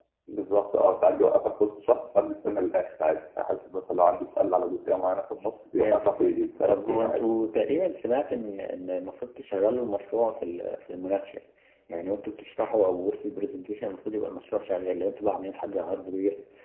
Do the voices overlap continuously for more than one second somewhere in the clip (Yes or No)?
Yes